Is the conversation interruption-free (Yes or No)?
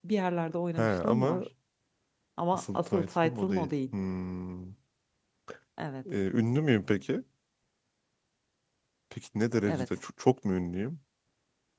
No